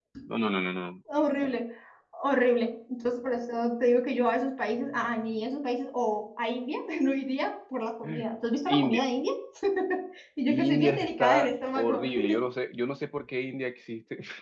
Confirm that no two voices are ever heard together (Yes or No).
No